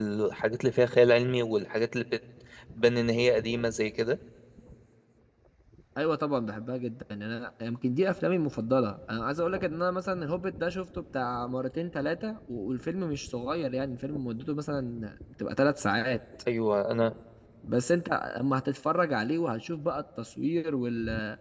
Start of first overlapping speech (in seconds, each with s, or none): none